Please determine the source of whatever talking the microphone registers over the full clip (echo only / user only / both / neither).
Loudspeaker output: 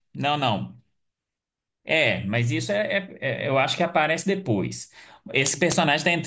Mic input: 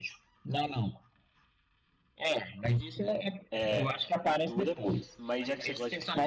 both